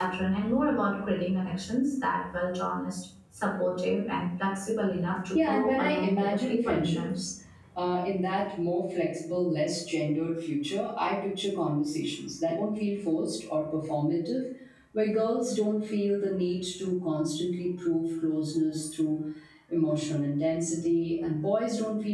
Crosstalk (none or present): present